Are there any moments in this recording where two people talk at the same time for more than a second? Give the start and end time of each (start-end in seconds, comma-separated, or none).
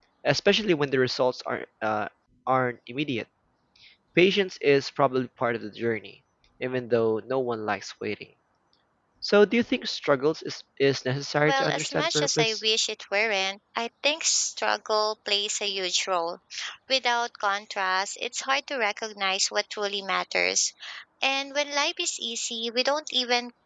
11.4-12.6